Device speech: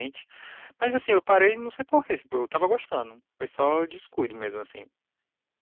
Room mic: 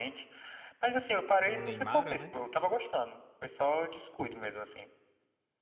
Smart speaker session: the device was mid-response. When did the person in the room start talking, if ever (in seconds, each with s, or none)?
1.4 s